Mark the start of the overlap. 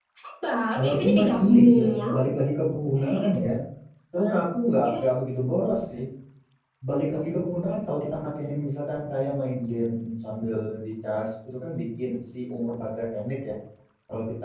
0.8 s

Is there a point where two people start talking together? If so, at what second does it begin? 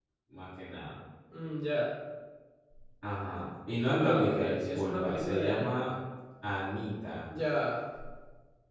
4.0 s

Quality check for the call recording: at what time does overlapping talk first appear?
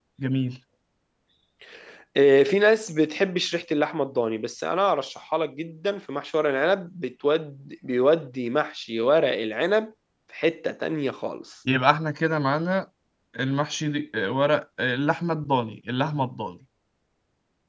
none

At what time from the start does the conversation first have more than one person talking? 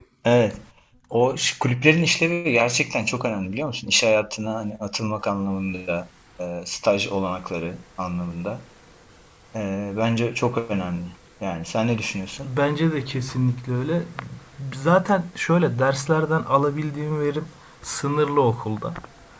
none

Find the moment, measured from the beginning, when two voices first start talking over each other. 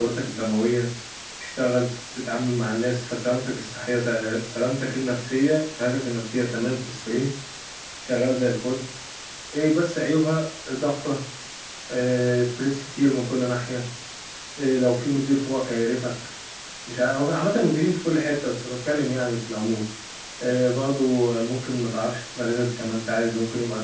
none

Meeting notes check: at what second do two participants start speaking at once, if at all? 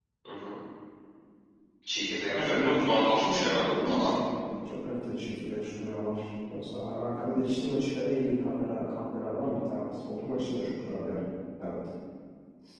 2.3 s

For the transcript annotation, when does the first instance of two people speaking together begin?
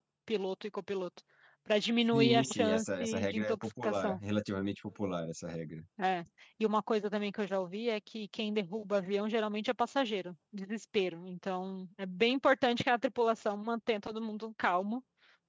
2.1 s

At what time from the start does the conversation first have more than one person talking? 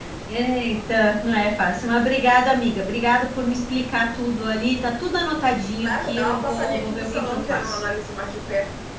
5.8 s

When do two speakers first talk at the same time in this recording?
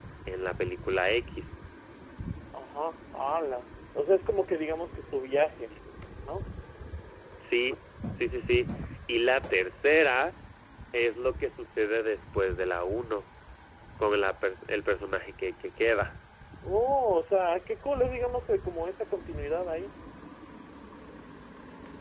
none

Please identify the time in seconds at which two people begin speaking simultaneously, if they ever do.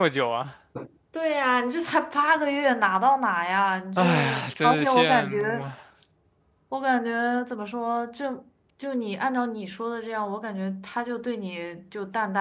4.0 s

